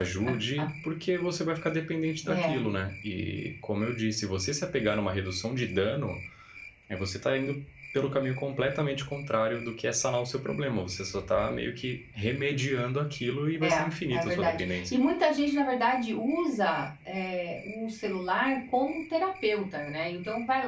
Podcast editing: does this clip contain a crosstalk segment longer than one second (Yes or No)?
Yes